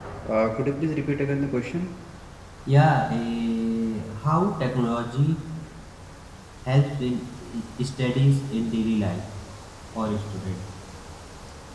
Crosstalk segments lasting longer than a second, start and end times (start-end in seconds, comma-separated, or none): none